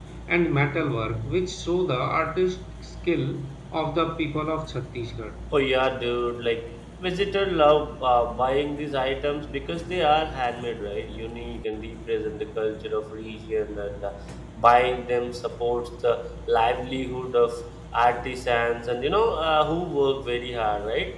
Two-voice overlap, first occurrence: none

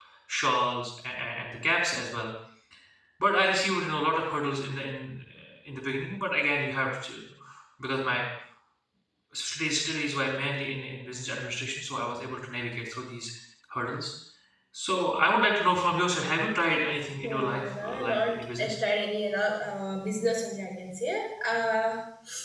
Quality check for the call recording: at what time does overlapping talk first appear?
17.2 s

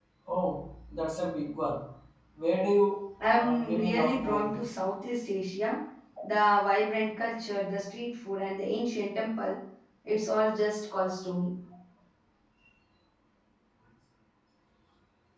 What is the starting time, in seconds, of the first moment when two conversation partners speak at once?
3.2 s

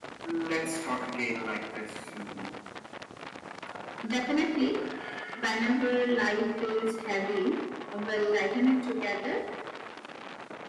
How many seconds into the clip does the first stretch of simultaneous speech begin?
none

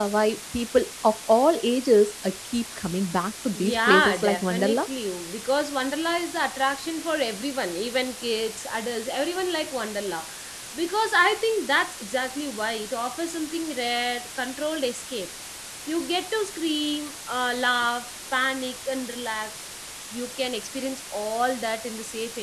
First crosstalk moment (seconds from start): 3.5 s

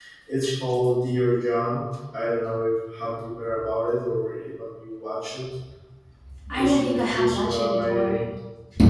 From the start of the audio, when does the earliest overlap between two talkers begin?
6.5 s

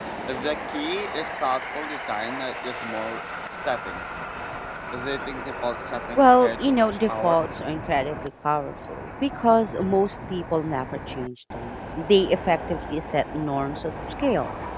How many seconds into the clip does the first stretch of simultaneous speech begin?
6.2 s

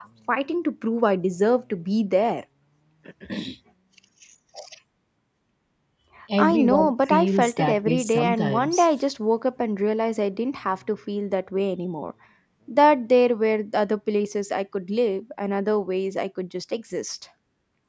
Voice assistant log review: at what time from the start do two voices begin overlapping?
6.4 s

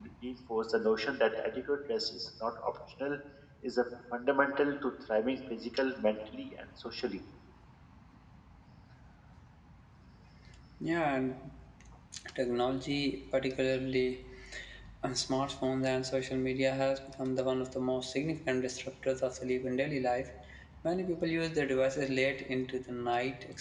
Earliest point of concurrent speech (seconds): none

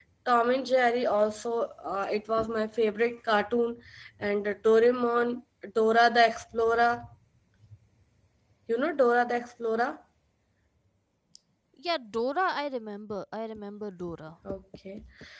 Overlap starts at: none

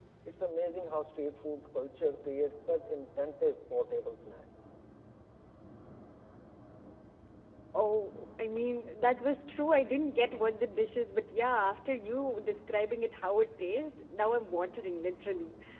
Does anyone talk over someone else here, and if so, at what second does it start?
none

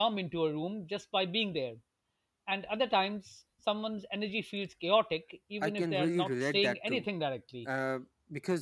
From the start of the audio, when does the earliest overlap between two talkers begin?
5.6 s

